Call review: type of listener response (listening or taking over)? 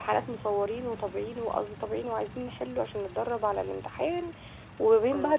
listening